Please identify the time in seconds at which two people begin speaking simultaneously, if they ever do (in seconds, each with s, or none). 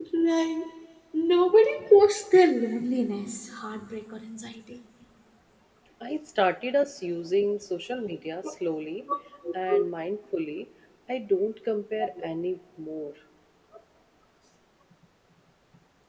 none